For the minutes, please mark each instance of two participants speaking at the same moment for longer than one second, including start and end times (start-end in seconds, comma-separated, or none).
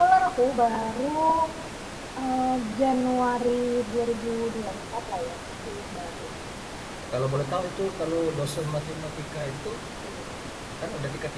none